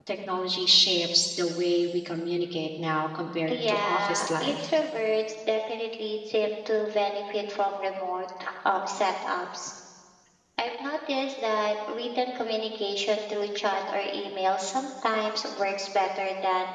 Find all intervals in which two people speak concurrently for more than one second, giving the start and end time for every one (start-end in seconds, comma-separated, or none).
3.5-4.7